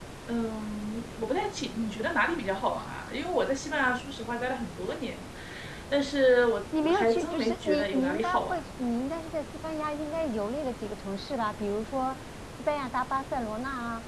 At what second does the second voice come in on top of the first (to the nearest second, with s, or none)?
7 s